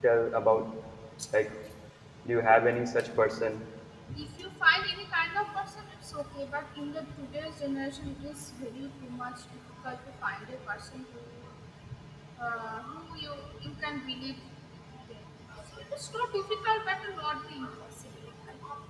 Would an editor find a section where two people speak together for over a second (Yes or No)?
No